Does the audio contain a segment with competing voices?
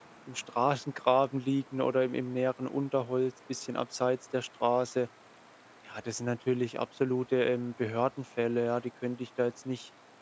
No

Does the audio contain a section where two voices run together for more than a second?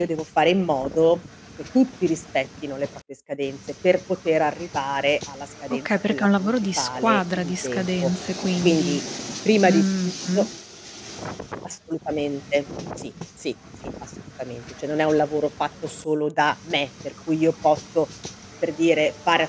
Yes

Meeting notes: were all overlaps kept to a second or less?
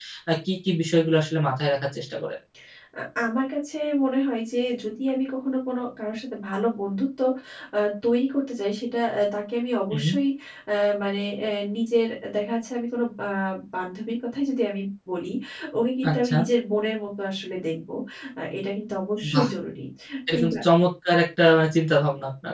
Yes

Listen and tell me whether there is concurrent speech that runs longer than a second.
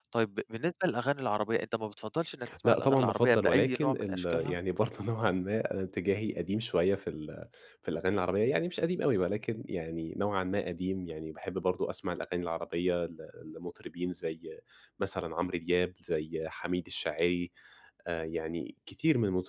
Yes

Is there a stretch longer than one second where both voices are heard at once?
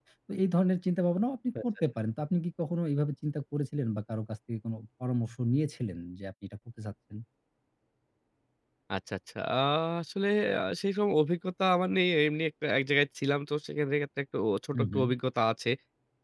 No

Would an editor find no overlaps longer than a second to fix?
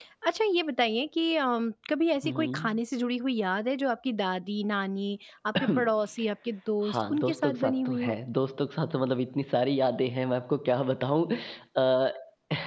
No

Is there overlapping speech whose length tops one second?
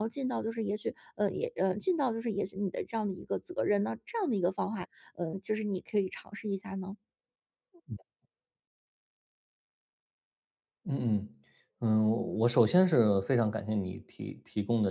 No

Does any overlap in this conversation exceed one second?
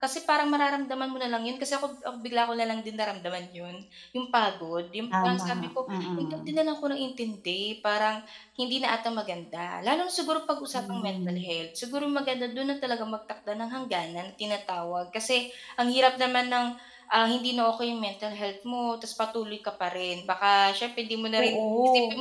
Yes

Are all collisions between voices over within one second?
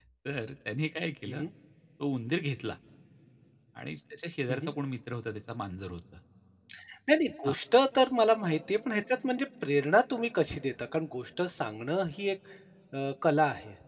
Yes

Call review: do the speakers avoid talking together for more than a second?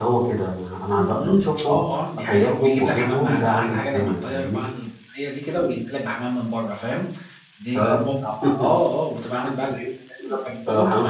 No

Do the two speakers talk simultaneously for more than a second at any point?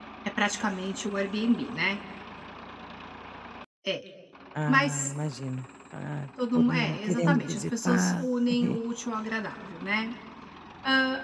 Yes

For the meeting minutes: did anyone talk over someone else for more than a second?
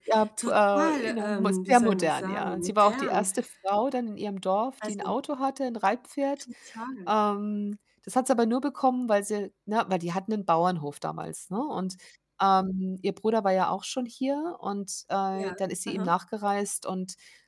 Yes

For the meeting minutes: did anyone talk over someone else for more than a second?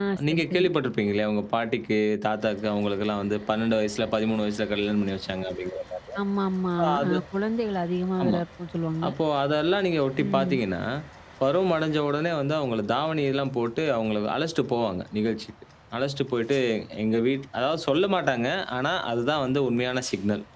No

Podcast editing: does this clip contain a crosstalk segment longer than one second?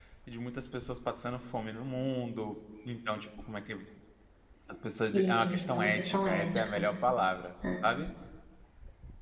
Yes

